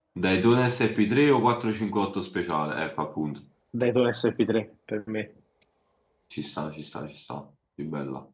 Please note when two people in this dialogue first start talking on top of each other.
none

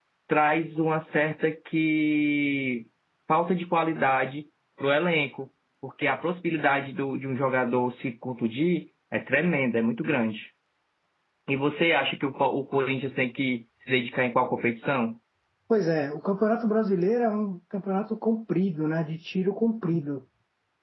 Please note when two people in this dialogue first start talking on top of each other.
none

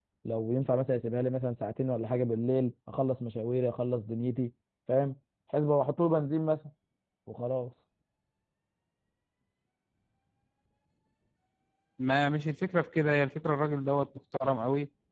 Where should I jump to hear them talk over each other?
none

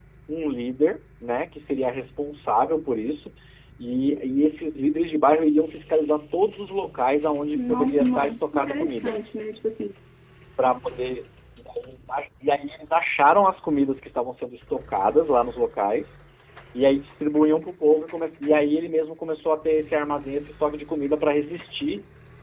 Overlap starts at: 7.5 s

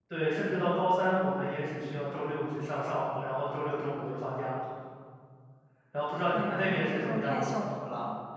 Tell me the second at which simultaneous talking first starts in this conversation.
6.3 s

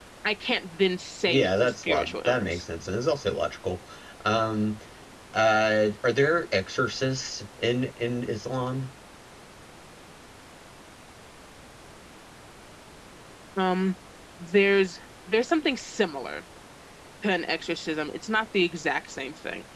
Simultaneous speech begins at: 1.3 s

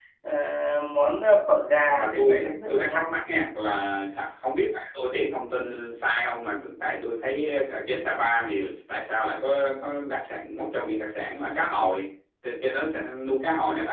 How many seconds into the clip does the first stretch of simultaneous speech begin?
1.9 s

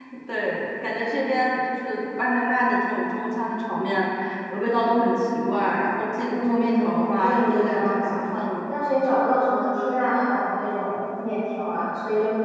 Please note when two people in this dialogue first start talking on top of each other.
6.3 s

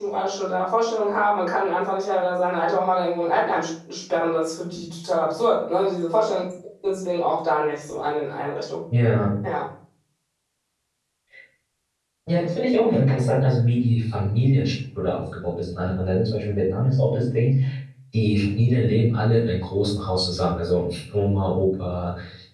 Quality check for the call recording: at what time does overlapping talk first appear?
none

